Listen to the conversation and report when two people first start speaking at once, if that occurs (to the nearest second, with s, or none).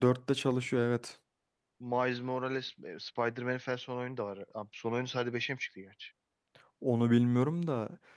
none